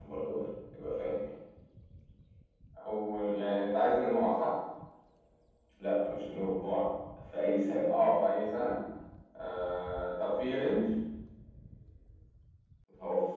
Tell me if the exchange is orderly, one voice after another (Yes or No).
Yes